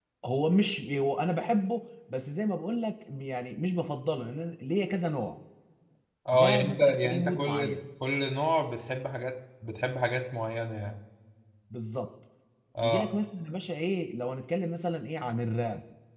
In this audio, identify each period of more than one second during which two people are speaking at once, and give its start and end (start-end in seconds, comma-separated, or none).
6.3-7.8